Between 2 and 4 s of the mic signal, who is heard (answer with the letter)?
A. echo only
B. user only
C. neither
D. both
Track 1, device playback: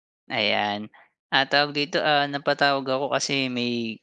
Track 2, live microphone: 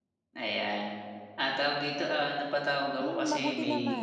D